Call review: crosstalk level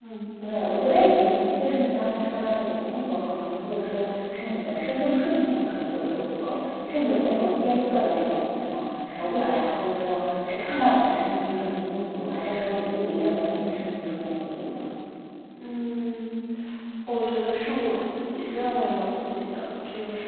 none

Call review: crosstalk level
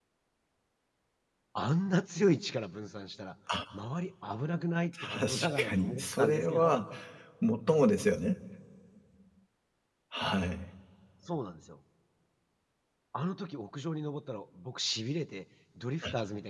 present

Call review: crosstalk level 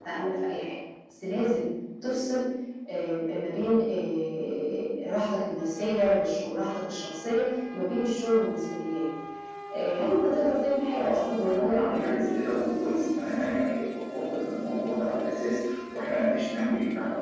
present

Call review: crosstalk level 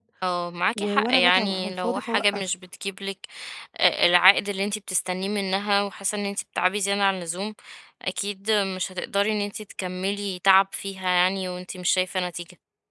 present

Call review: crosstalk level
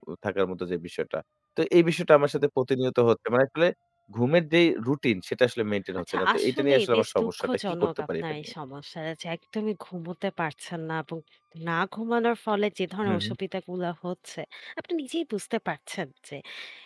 present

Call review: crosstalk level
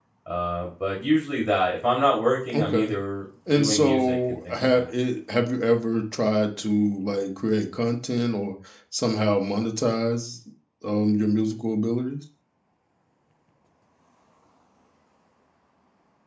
present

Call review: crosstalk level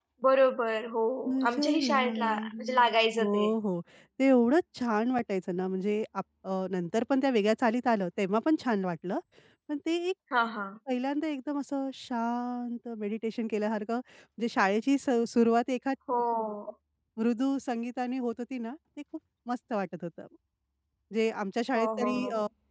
present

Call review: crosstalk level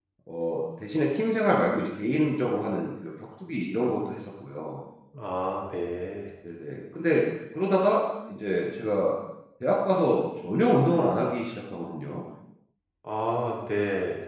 none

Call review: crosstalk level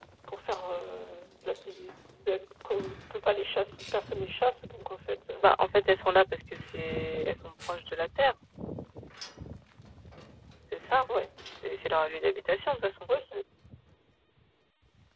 none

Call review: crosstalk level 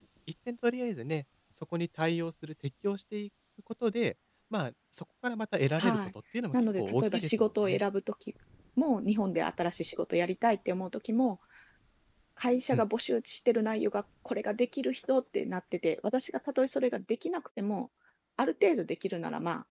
present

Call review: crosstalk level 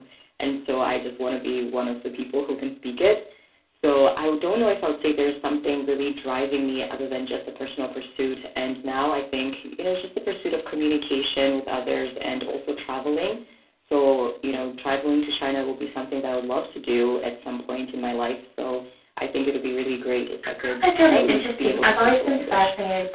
present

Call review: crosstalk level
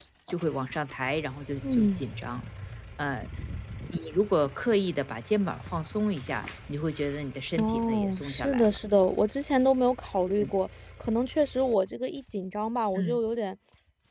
present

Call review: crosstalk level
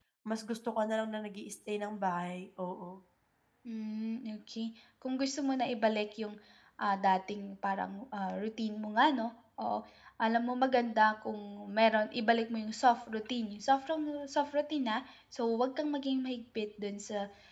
none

